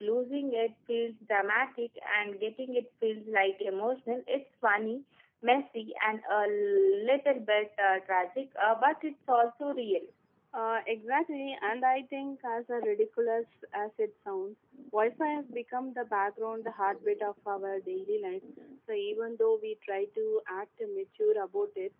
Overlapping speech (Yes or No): No